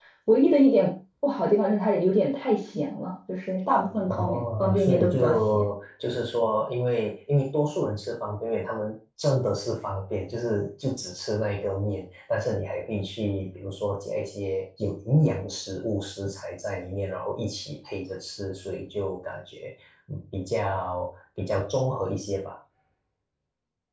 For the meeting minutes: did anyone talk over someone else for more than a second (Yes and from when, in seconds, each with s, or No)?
Yes, from 4.1 s